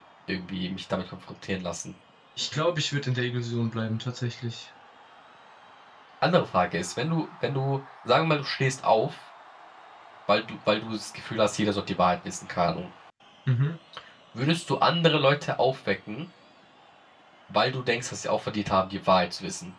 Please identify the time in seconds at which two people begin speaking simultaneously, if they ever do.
none

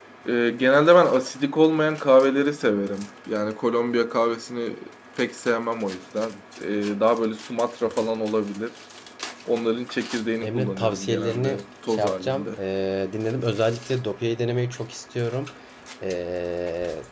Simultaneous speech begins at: 10.4 s

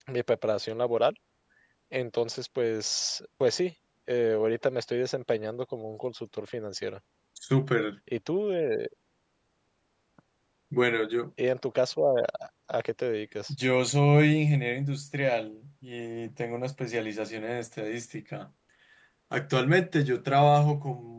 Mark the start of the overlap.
none

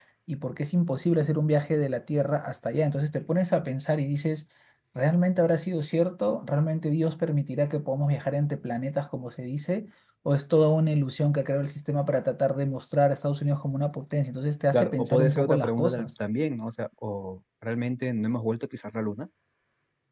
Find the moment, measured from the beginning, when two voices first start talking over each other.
14.7 s

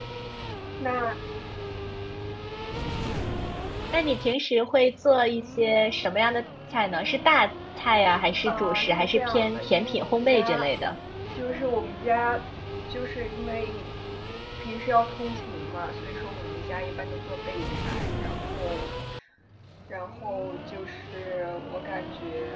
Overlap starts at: 8.4 s

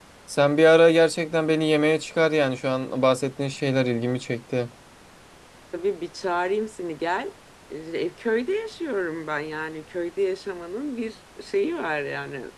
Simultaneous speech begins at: none

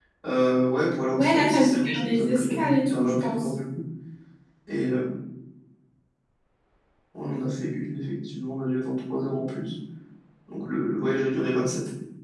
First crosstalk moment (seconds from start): 1.2 s

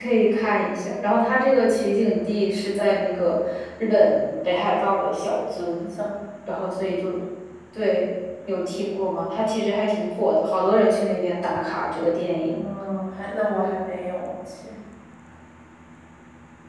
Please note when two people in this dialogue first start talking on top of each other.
none

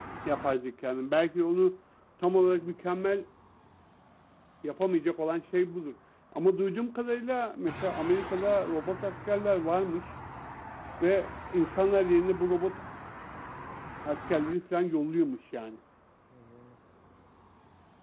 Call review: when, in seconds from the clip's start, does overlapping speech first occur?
none

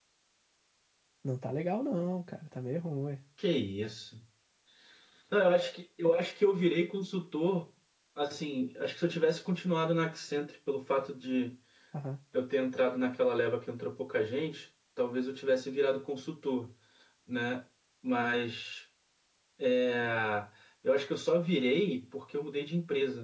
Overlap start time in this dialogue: none

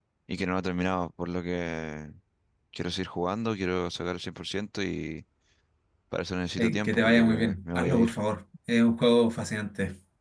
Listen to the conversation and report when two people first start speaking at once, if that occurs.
6.6 s

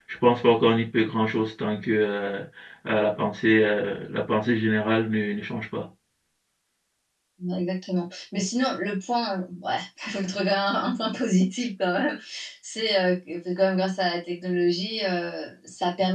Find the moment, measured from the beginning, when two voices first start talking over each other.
none

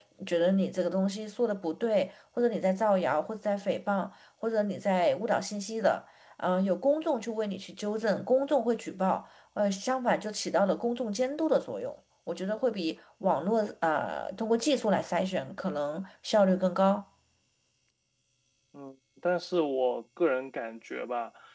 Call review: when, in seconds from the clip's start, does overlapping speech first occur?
none

